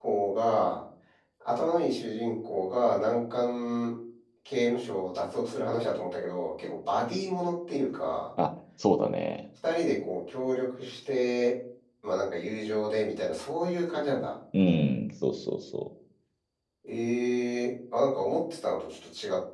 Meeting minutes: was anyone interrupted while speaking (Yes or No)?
No